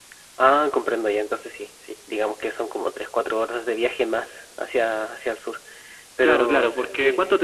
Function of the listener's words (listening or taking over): taking over